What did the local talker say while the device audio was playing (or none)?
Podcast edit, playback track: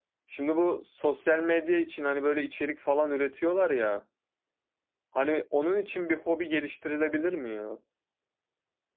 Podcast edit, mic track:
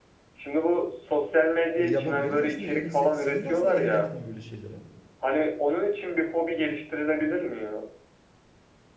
Ya yapabiliriz aslında yani se- senin de aslında elin yatkın böyle şeylere.